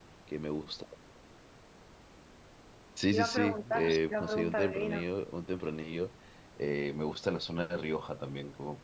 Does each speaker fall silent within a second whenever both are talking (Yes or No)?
No